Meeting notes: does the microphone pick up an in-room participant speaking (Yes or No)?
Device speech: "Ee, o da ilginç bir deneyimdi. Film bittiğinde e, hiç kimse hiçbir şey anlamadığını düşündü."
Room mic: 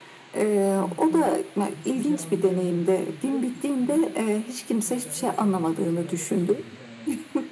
Yes